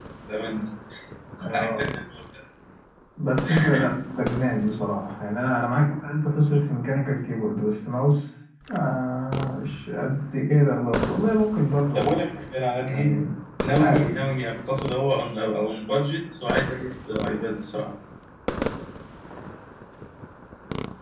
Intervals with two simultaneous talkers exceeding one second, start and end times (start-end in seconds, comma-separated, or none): none